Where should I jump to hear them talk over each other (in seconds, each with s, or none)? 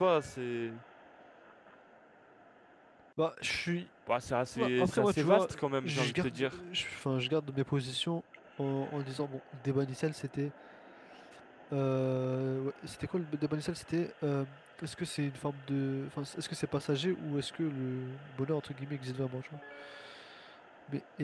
4.5 s